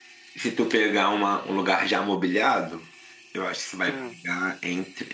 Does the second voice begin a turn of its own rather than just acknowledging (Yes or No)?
No